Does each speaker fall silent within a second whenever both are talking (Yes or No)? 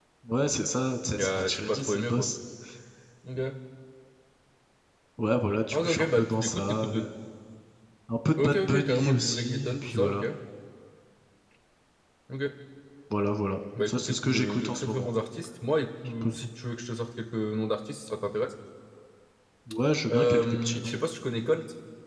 No